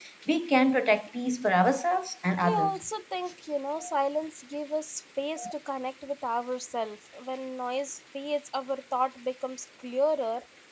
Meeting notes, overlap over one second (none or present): none